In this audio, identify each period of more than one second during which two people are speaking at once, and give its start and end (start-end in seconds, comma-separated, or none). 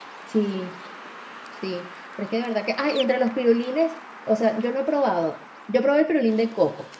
none